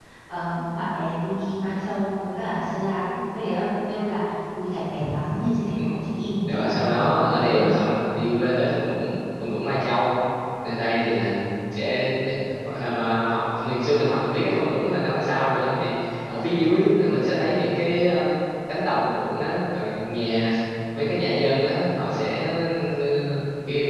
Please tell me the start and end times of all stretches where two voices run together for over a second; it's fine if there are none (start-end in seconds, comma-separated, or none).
6.5-7.8